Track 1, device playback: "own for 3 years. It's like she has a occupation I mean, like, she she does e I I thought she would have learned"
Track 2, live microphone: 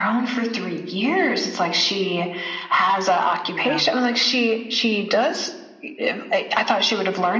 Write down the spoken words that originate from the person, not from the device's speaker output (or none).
yeah.